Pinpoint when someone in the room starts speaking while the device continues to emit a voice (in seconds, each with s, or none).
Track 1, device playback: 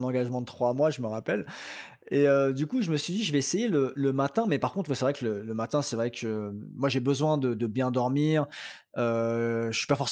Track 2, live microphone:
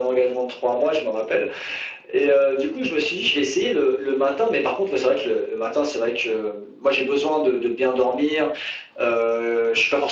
none